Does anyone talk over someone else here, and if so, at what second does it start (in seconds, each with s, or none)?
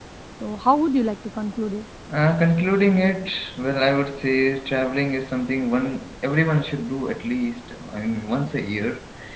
none